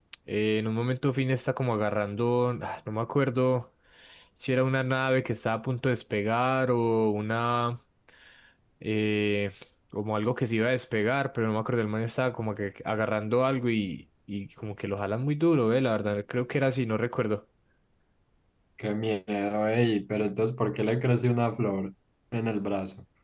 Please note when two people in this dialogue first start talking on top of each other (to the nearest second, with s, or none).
none